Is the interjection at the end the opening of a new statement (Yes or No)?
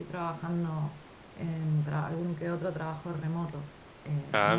No